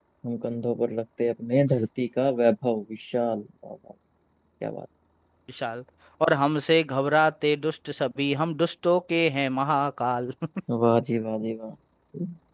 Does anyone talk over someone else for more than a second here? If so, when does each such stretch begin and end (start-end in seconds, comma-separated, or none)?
none